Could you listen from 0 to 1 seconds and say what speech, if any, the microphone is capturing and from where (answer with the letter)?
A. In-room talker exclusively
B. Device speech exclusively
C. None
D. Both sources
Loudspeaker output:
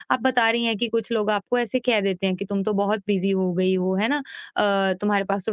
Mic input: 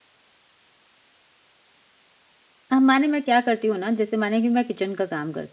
C